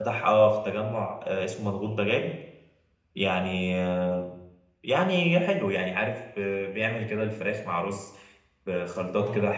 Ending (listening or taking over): listening